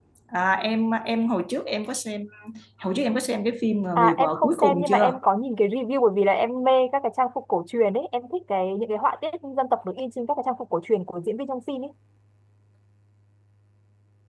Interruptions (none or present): present